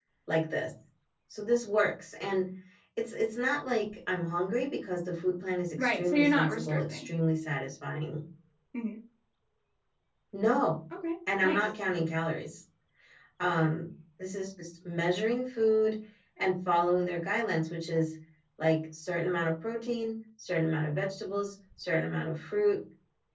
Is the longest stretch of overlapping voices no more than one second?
No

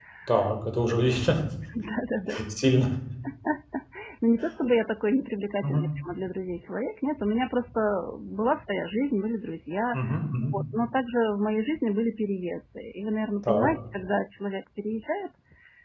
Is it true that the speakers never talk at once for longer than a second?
Yes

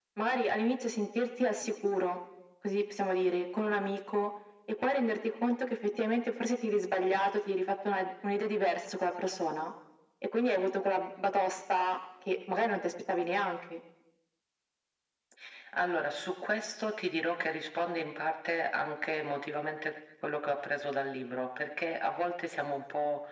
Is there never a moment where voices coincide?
Yes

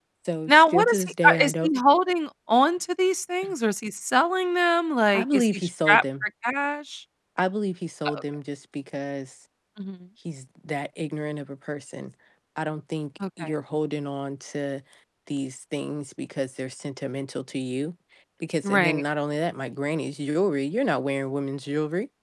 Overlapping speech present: Yes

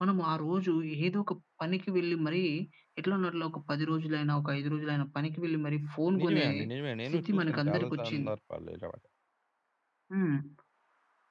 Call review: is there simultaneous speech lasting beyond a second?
Yes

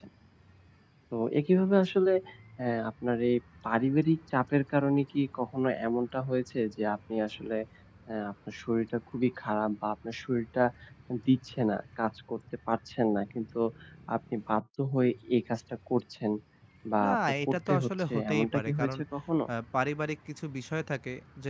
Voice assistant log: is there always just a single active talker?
No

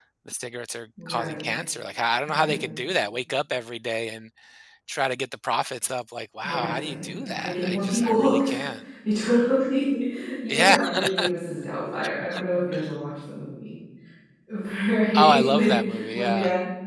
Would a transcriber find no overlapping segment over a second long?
No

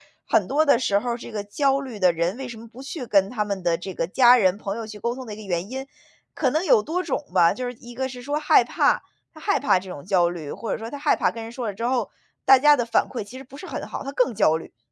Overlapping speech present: No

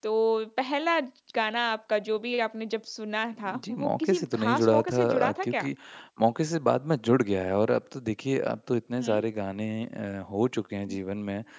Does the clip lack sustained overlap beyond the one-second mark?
No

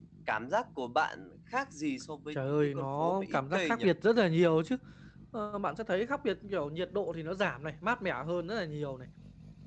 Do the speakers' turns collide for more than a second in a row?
Yes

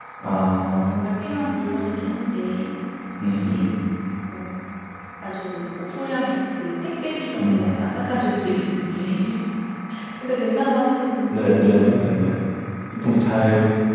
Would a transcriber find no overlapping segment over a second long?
Yes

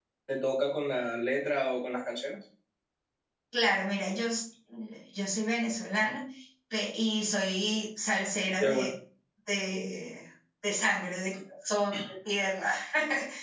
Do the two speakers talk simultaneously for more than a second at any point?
No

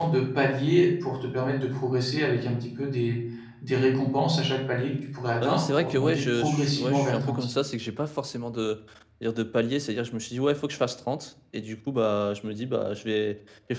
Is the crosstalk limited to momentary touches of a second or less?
No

